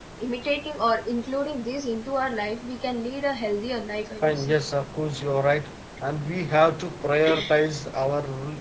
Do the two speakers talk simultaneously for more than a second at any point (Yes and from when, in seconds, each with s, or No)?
No